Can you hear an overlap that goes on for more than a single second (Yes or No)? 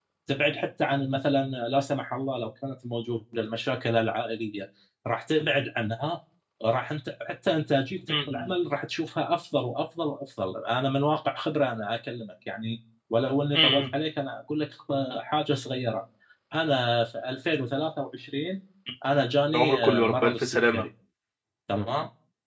Yes